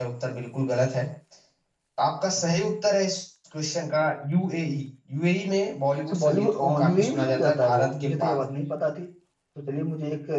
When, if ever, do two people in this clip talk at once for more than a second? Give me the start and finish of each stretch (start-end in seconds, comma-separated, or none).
6.1-8.4